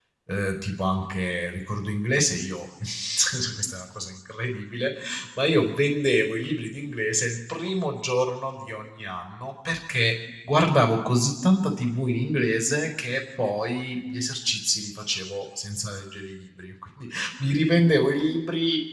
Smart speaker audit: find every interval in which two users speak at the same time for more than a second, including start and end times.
none

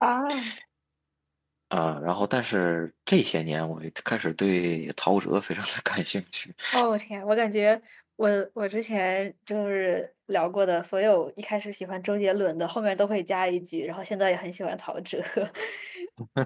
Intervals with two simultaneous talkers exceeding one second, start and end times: none

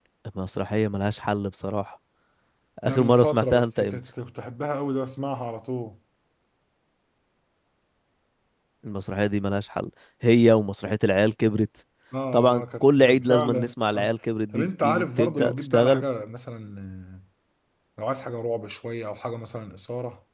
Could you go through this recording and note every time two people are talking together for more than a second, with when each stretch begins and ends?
2.8-4.1, 12.3-14.1, 14.5-16.0

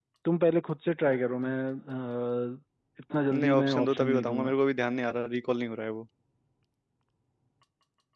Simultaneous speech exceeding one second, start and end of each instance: 3.3-4.5

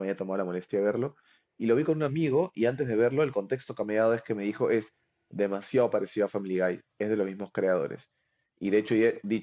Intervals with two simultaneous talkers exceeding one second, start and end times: none

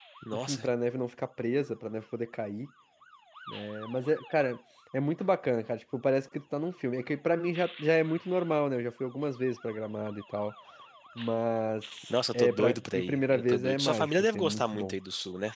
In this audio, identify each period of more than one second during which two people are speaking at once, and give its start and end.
12.3-15.0

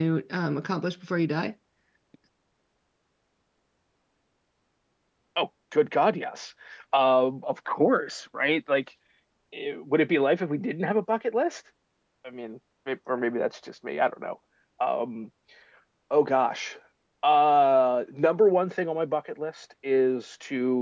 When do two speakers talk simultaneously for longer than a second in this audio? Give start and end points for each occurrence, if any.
none

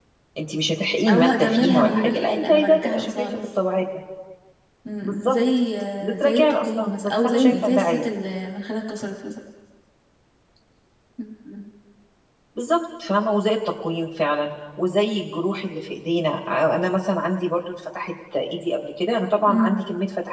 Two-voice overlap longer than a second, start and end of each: 1.1-3.4, 6.0-8.0

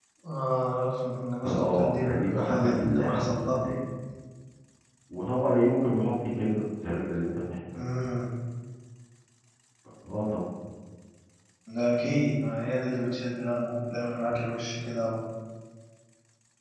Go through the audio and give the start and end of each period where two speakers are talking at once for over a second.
1.5-3.7

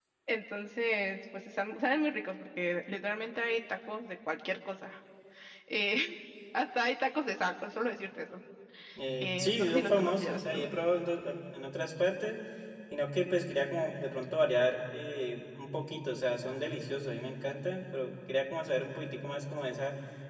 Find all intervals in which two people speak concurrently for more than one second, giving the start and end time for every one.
9.2-10.7

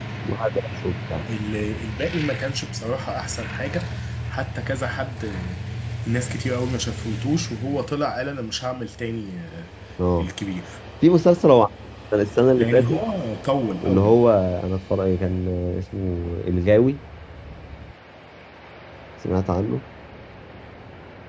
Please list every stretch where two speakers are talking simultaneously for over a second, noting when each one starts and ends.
none

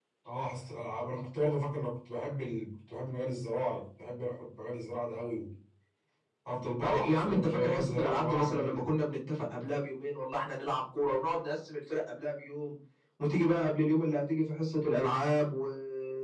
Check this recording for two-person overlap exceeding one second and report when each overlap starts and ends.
6.8-8.9

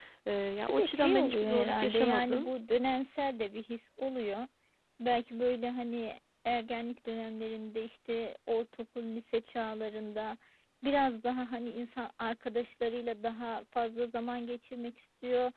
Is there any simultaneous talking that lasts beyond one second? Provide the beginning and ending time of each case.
0.7-2.5

